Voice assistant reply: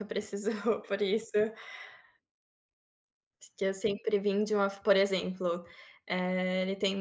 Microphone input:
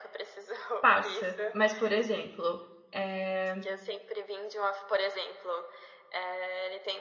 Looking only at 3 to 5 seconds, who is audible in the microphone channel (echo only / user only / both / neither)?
both